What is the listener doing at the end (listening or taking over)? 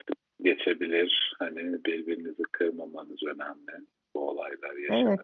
taking over